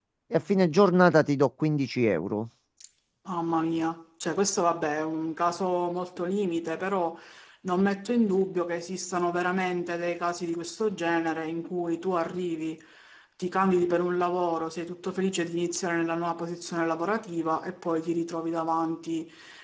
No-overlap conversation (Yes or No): Yes